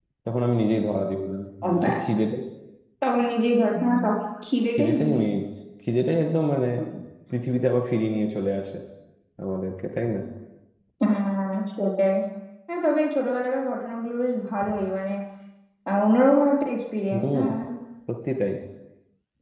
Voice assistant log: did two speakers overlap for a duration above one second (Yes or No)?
No